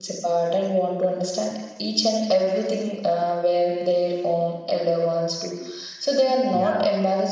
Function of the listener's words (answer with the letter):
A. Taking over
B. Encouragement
B